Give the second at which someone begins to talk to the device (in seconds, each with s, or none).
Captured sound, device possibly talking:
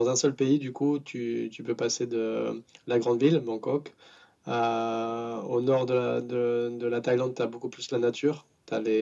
none